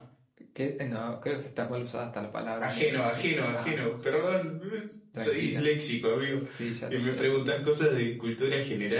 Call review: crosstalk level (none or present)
present